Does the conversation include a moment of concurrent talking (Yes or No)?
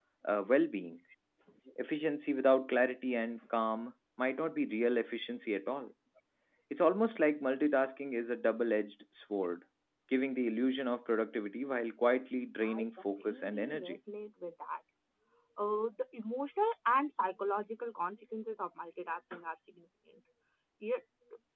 Yes